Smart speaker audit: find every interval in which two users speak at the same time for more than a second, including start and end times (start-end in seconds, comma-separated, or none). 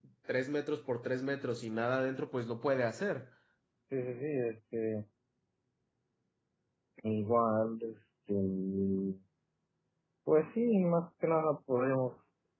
none